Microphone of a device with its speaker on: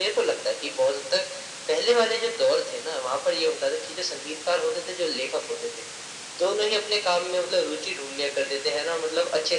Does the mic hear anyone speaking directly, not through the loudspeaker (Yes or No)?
No